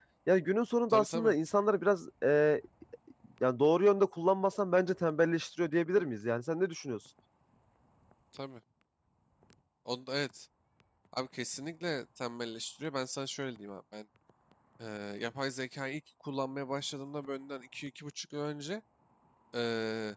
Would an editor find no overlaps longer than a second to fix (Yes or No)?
Yes